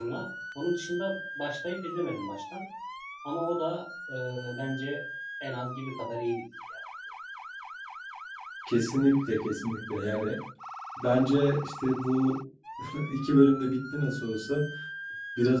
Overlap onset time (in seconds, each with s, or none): none